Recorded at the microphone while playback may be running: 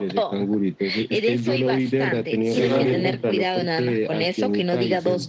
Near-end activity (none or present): present